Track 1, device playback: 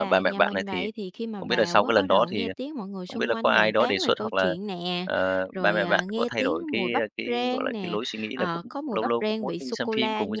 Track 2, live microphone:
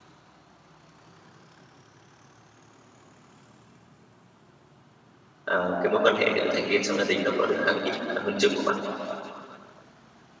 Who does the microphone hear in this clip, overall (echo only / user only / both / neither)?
user only